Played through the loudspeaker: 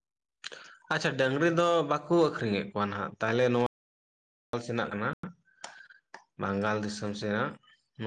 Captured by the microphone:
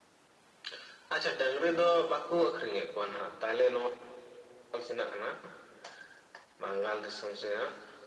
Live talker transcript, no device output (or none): none